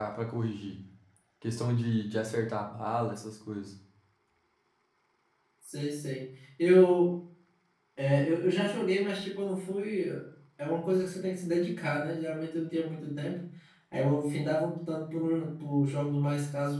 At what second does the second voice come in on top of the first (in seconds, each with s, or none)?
none